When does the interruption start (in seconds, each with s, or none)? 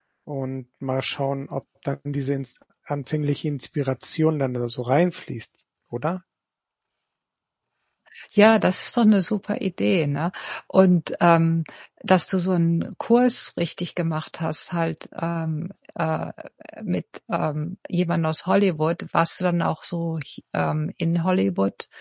none